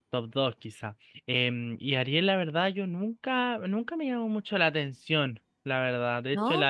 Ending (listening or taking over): listening